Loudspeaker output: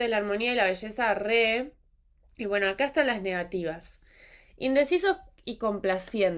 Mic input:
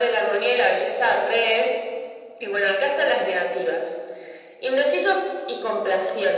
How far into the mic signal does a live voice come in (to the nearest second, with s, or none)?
none